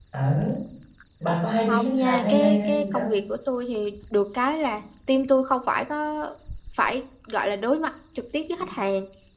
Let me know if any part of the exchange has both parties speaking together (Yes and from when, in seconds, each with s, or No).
Yes, from 1.7 s